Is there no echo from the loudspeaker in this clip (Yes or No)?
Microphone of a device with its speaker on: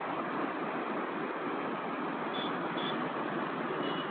Yes